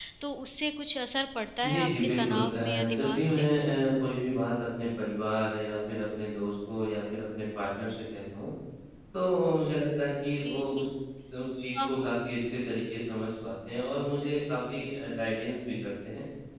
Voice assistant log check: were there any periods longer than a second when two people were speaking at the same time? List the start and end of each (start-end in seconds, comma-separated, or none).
1.6-3.5